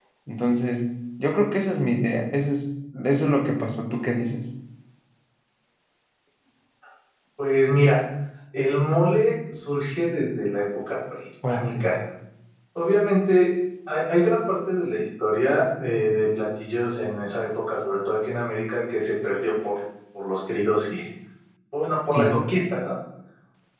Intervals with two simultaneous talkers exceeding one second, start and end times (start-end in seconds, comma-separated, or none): none